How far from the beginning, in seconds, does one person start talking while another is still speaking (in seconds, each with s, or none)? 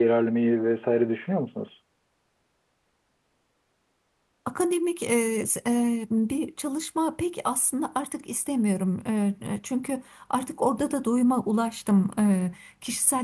none